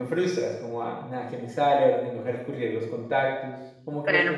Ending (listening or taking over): taking over